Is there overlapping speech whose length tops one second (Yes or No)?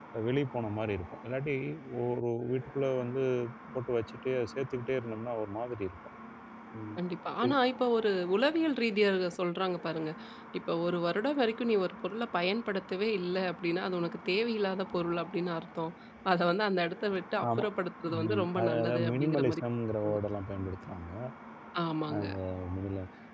Yes